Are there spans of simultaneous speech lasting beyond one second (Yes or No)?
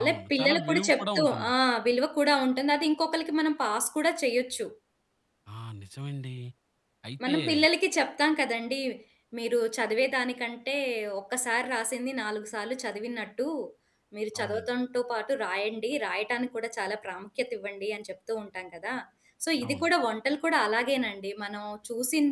Yes